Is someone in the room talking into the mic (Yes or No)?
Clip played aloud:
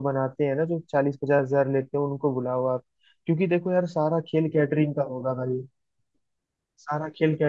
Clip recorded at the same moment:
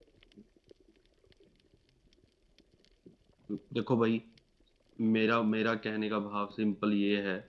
Yes